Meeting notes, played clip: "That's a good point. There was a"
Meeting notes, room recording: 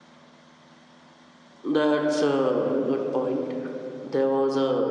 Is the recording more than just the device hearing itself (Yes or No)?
No